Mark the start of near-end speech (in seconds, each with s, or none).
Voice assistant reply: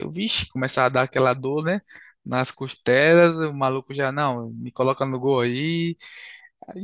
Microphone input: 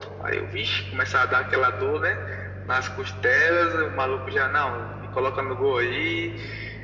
none